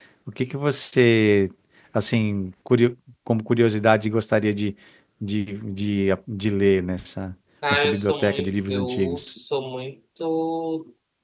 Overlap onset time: 7.6 s

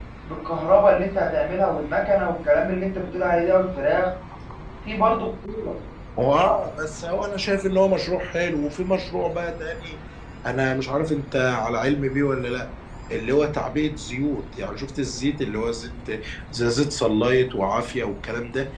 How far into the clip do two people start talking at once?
none

